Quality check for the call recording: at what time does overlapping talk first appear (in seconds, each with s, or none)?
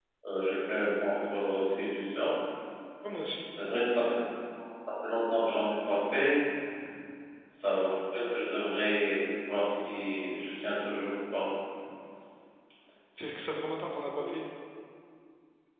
none